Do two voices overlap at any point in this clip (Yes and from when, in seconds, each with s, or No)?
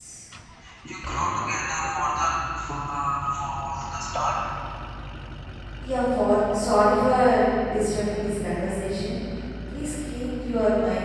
No